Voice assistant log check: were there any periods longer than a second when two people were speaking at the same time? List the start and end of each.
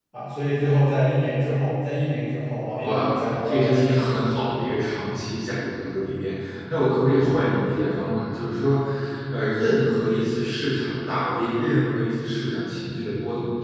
2.8-4.3

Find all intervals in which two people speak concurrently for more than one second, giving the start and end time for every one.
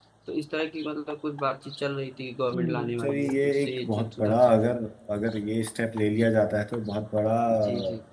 2.6-4.5

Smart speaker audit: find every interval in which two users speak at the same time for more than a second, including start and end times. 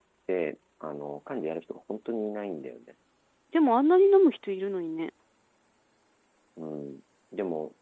none

